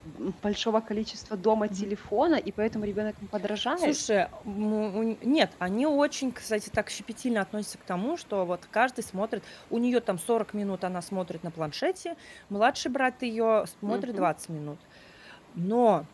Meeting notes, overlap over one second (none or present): none